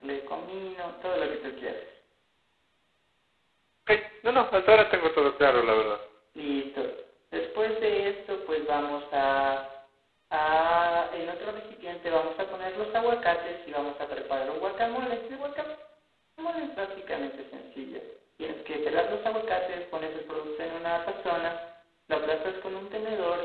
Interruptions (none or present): none